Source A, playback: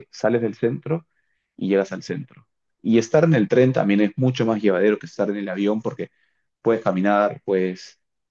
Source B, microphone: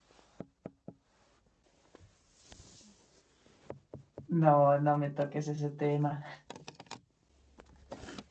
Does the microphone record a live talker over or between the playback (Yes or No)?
Yes